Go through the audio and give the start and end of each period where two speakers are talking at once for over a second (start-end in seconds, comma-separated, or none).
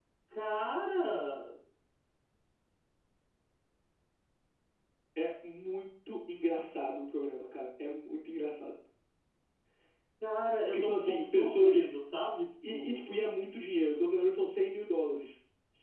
10.7-11.9